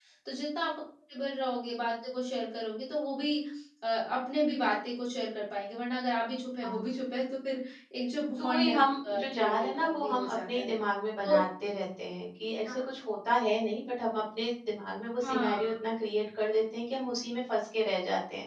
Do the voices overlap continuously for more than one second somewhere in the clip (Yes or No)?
Yes